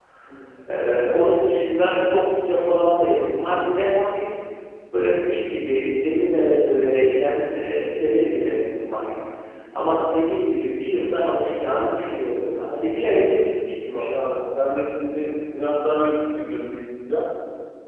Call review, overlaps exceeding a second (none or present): none